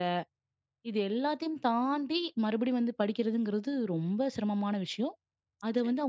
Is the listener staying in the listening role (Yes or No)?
Yes